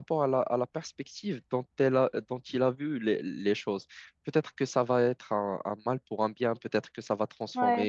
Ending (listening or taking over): listening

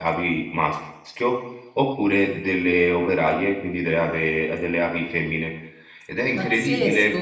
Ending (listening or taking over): taking over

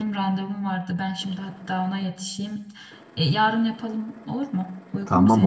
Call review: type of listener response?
taking over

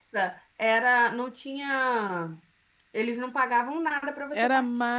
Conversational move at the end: taking over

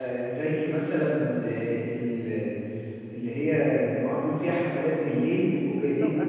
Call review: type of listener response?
listening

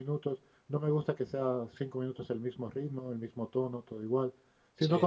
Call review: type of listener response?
listening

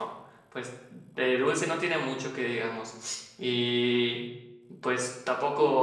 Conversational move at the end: listening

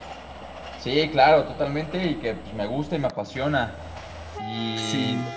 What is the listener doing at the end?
listening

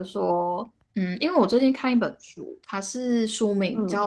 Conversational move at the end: listening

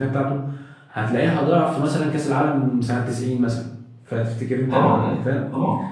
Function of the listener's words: taking over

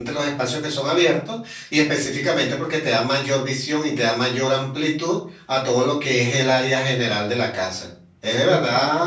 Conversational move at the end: listening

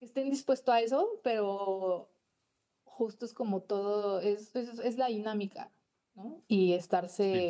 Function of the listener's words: listening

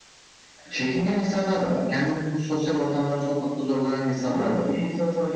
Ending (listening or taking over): taking over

